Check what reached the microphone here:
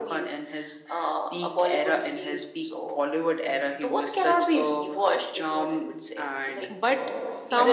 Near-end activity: present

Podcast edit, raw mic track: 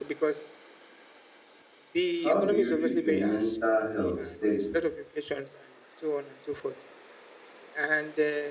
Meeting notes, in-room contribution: present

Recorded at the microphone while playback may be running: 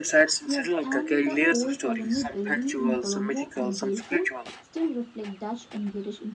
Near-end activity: present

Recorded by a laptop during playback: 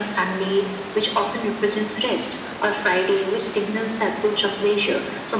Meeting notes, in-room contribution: none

